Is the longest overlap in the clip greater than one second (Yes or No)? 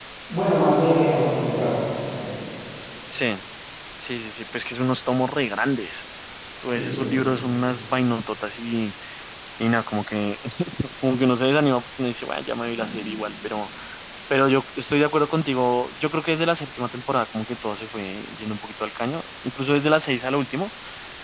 No